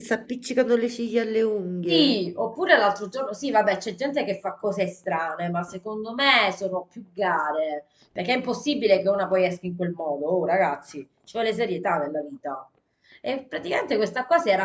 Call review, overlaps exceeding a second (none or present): none